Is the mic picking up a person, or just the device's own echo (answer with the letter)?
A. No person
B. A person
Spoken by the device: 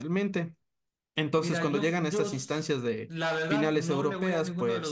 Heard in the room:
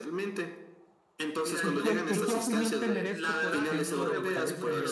B